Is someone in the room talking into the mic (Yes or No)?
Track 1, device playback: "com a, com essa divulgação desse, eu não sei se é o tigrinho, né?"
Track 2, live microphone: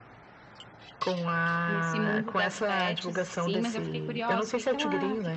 Yes